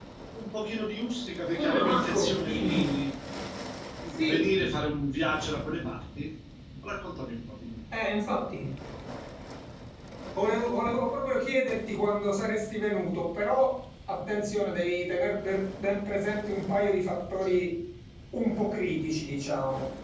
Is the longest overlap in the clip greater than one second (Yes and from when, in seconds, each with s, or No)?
Yes, from 1.5 s